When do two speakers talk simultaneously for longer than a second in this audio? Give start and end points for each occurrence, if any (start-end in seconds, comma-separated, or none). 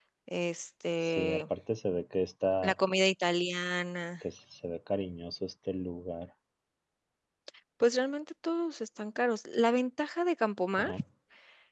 none